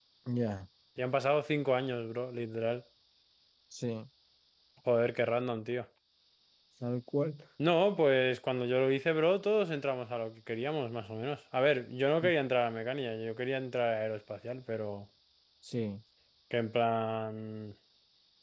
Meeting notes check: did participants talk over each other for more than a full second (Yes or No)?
No